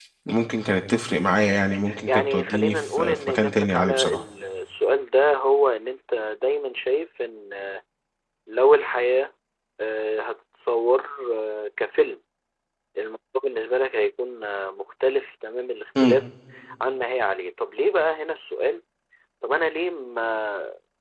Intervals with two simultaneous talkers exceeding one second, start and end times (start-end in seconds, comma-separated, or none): 2.1-4.2